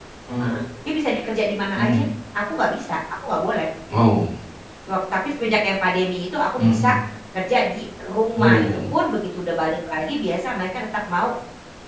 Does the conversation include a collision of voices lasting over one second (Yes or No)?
No